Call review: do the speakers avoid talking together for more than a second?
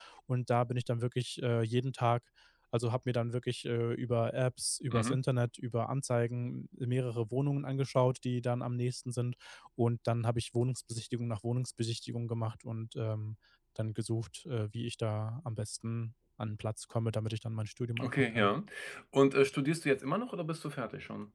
Yes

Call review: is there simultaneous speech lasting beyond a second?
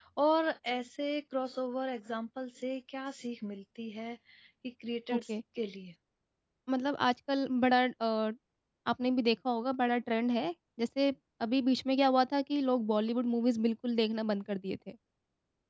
No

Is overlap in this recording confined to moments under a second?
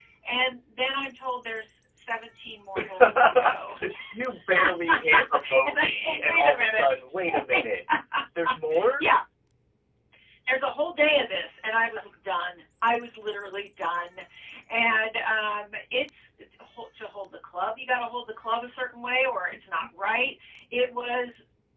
No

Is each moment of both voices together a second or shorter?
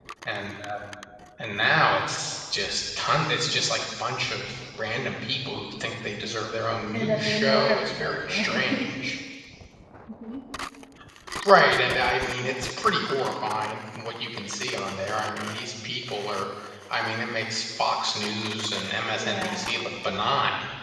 No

